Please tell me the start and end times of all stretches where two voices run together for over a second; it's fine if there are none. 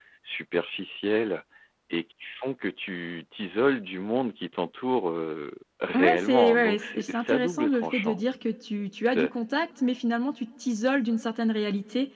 6.0-8.2

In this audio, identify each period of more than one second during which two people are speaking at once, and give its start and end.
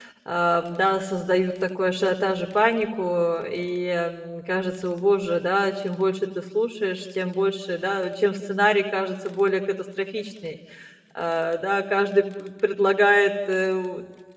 none

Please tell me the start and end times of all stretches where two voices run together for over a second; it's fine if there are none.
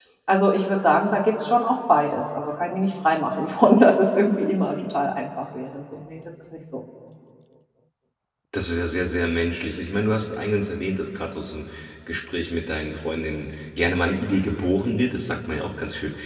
none

